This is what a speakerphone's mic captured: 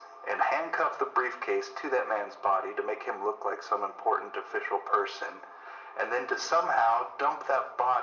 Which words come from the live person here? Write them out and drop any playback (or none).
none